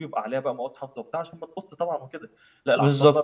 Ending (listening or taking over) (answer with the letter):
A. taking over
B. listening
B